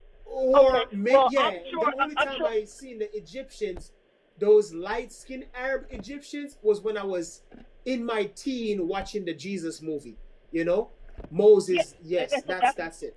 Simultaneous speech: Yes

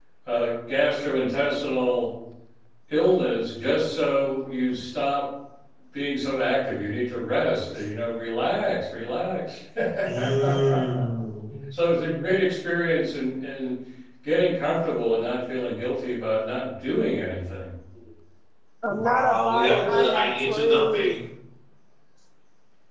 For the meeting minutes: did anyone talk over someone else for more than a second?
Yes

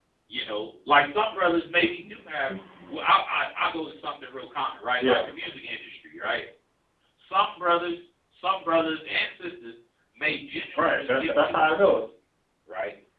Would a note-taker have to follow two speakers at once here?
Yes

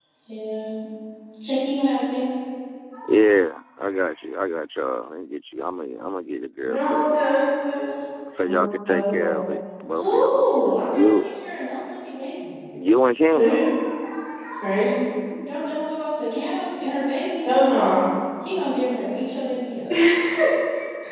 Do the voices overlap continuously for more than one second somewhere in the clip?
Yes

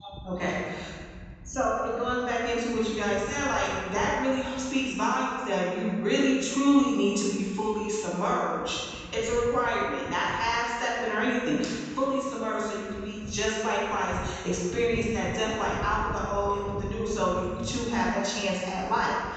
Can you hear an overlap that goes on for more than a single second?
No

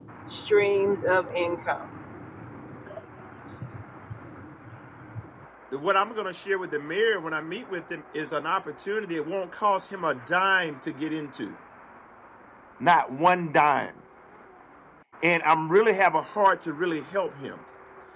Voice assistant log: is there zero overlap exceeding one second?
Yes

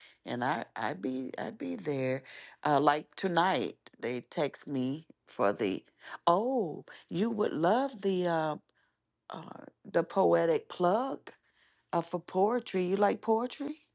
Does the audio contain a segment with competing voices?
No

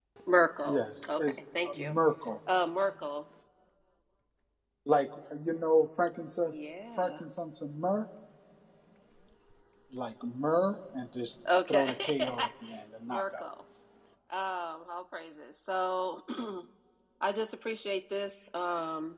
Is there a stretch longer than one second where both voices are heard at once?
Yes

